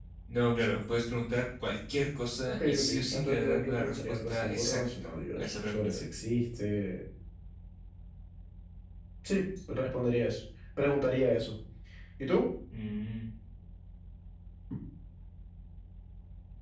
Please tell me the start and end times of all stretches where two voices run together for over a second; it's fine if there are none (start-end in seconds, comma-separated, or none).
2.5-6.0